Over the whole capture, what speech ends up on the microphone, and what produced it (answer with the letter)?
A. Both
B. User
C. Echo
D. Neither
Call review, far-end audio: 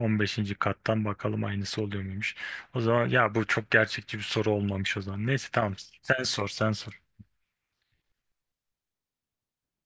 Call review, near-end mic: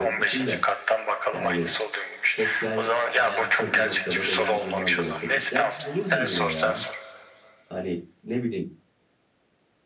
A